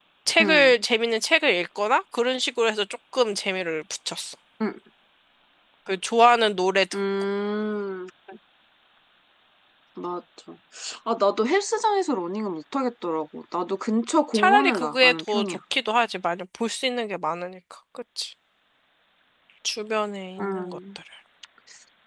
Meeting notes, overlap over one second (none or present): present